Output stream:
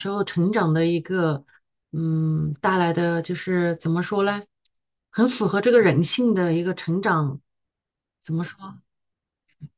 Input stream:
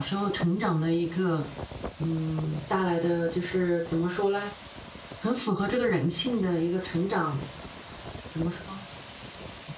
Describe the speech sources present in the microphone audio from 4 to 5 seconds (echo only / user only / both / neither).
echo only